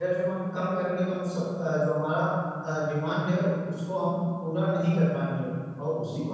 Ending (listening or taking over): listening